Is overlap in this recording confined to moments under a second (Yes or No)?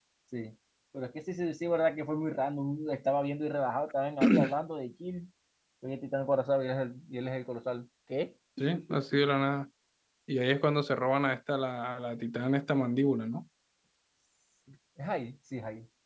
Yes